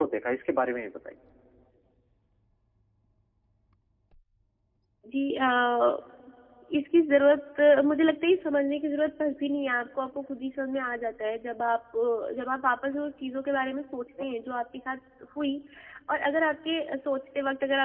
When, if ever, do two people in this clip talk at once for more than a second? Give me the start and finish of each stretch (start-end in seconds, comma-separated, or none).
none